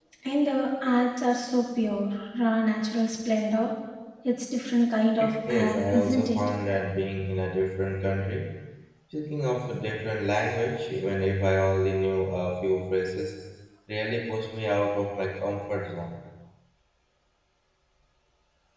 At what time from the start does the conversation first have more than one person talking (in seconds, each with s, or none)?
5.2 s